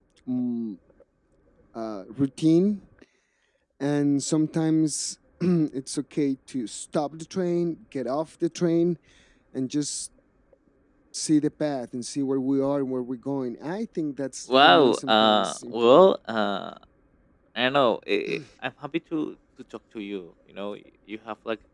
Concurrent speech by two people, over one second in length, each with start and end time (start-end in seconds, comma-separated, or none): 14.6-16.2